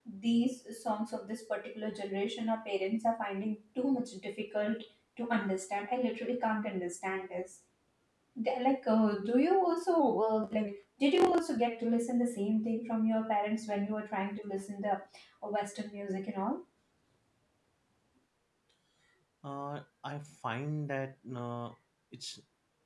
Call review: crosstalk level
none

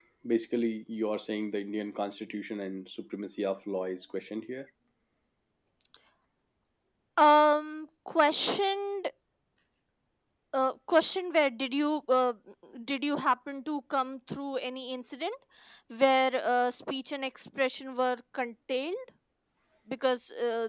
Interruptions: none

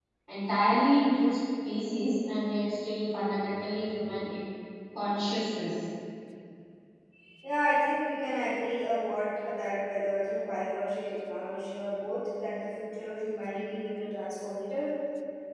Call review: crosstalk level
none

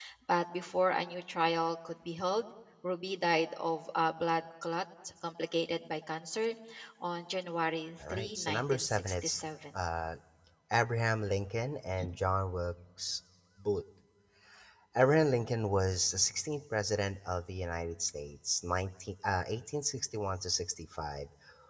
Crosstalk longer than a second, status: present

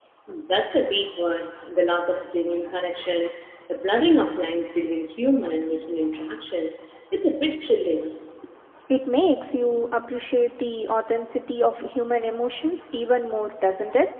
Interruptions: none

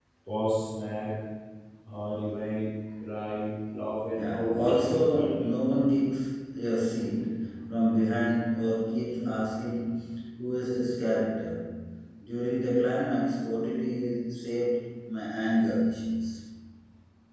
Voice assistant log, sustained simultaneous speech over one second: present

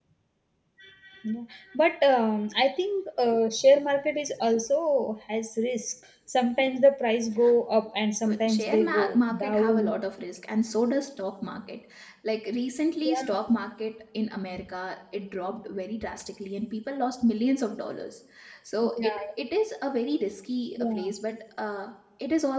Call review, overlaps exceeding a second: present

